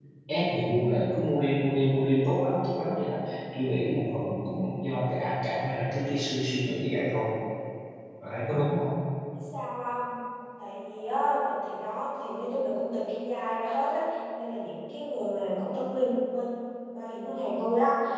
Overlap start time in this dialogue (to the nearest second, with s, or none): none